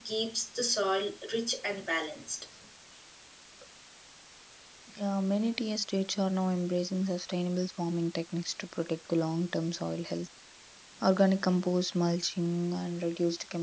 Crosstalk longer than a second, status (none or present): none